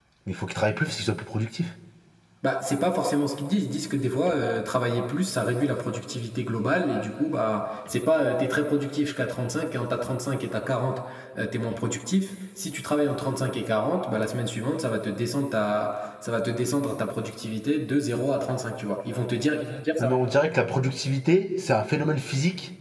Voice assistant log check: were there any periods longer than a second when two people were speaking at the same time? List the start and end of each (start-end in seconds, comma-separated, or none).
none